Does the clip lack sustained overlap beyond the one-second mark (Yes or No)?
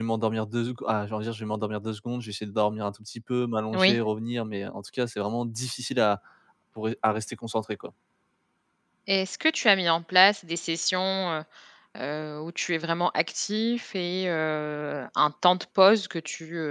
Yes